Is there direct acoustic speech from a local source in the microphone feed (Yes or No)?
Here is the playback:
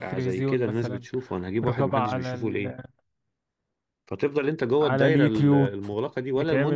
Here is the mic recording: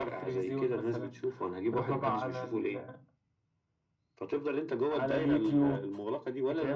No